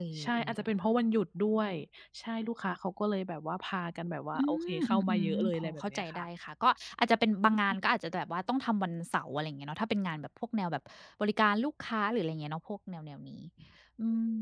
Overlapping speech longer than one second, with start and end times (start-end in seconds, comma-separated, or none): 4.3-6.2